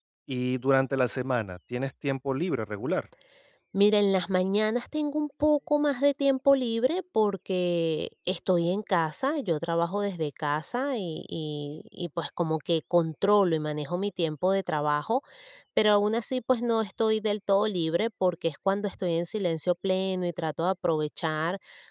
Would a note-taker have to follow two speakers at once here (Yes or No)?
No